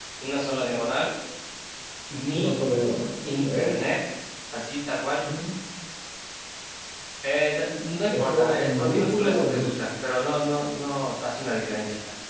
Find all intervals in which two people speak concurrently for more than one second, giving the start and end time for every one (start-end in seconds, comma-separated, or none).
8.1-9.9